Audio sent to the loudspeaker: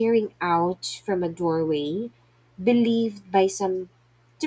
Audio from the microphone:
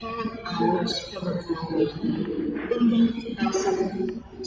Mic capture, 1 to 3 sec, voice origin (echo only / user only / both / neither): echo only